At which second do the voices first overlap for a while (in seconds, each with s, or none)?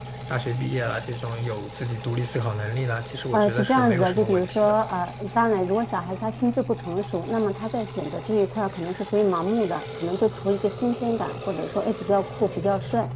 3.3 s